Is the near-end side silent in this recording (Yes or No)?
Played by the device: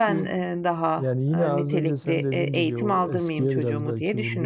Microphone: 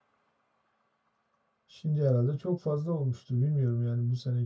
No